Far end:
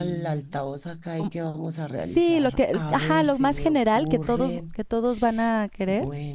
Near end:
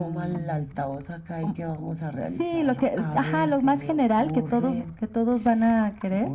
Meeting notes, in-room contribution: none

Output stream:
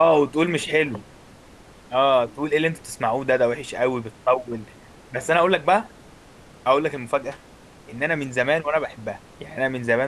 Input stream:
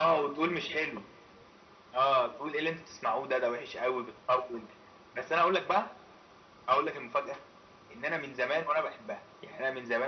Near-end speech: none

